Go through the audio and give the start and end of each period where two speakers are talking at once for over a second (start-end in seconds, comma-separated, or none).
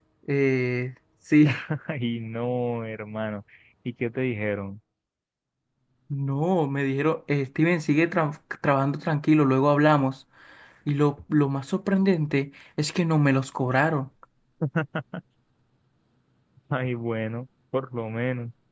none